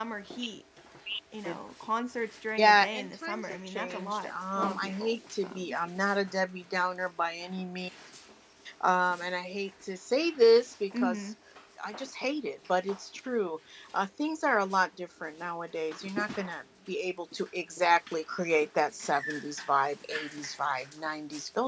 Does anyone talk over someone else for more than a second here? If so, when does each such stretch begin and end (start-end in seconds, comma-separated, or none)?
2.6-5.8